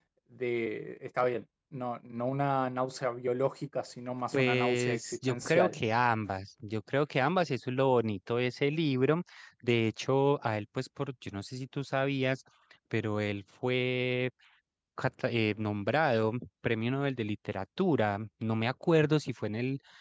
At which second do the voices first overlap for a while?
4.3 s

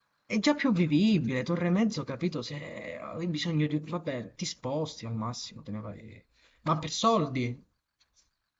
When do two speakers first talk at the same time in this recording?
none

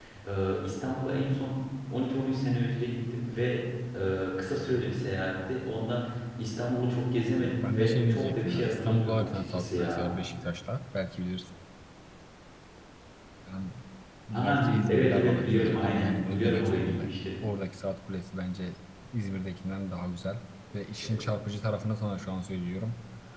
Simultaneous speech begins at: 7.4 s

